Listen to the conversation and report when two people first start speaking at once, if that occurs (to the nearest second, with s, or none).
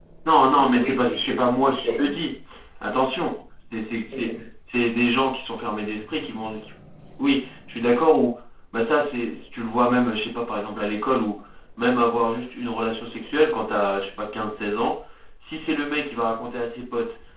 1 s